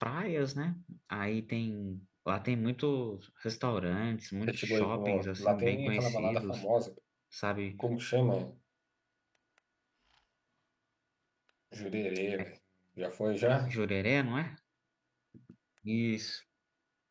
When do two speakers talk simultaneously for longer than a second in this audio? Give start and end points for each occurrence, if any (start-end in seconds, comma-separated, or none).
4.5-6.6